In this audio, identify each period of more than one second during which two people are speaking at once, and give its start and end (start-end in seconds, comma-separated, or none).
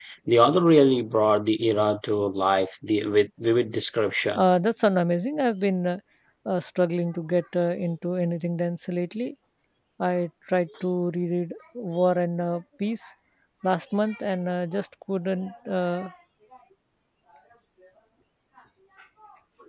none